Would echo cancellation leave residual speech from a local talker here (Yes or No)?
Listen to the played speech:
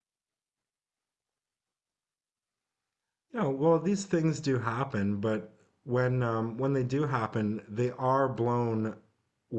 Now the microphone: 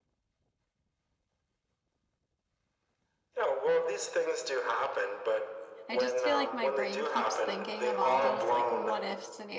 Yes